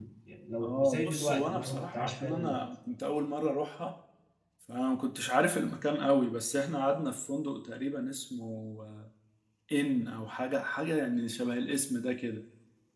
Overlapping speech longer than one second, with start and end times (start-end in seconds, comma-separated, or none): 0.6-2.6